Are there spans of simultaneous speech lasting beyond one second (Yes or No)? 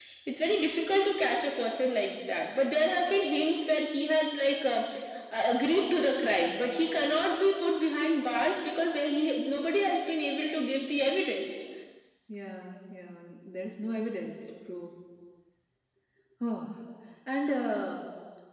No